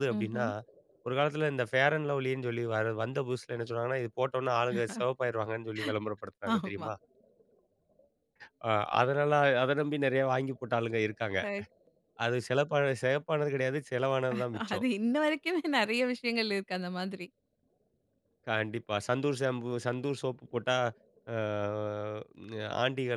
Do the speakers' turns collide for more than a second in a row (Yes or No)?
No